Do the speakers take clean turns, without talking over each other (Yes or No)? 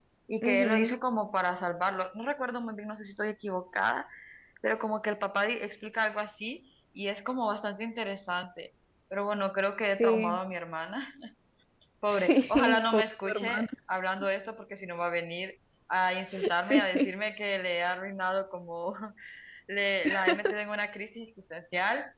No